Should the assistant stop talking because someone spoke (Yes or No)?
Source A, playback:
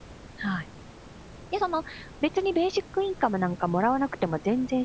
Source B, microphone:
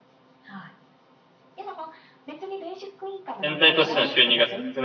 Yes